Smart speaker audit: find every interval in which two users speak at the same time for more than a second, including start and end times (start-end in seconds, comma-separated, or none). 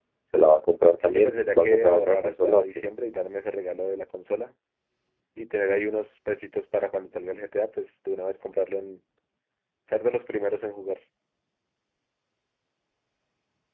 1.0-2.6